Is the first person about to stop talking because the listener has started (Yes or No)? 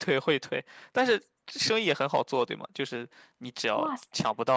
Yes